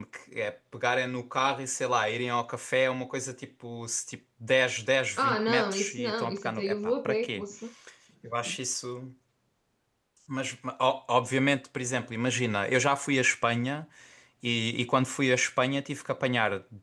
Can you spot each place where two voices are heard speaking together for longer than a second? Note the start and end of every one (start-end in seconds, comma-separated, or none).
5.2-7.4